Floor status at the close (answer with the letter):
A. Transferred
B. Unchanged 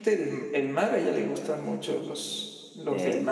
B